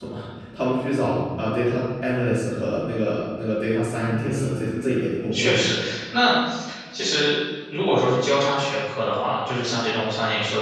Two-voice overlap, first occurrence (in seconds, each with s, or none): 4.1 s